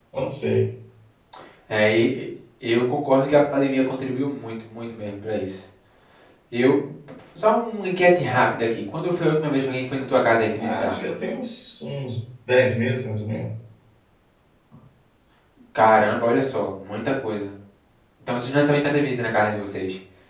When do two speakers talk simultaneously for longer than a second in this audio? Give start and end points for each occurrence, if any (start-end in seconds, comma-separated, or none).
none